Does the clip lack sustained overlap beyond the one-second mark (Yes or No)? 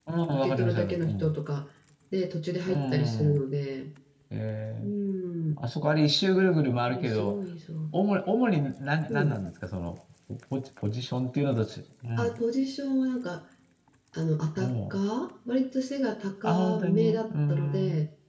No